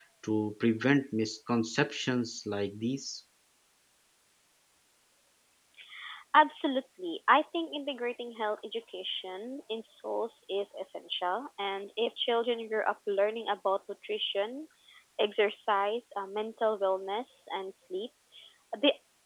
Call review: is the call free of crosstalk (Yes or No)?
Yes